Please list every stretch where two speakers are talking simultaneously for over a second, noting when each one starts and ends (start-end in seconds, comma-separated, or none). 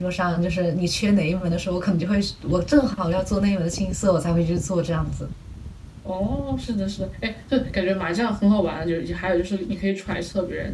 none